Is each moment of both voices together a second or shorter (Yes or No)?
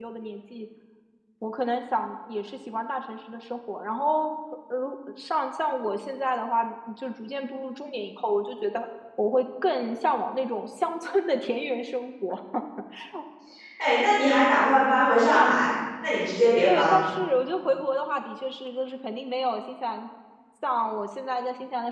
Yes